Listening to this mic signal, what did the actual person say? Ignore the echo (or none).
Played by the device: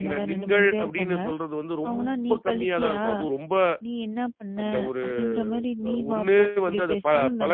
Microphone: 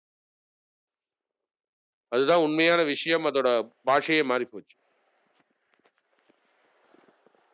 அதுதான் உண்மையான விஷயம். அதோட பாஷையே மாறி போச்சு.